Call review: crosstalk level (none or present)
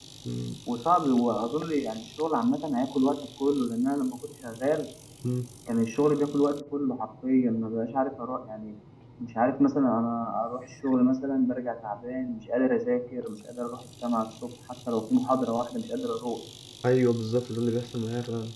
none